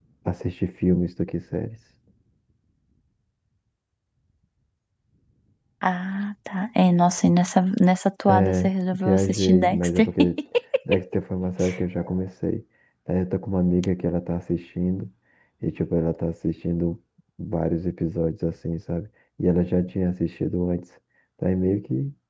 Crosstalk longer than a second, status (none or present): present